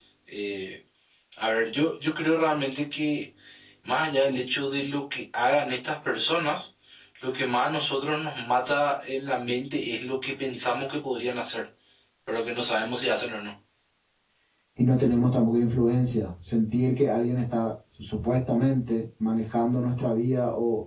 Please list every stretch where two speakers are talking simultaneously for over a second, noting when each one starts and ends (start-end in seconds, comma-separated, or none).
none